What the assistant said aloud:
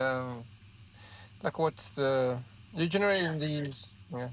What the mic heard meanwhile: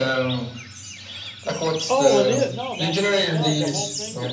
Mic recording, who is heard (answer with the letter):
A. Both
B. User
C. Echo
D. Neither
A